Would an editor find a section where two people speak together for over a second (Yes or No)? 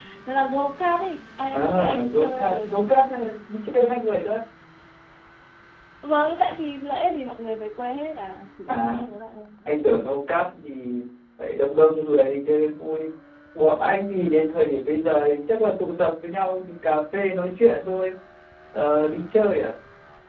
Yes